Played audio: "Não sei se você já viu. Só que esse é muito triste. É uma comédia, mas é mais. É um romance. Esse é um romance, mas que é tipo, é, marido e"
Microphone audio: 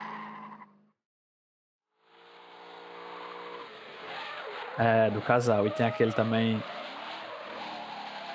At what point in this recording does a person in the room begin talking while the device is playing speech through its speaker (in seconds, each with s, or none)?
4.8 s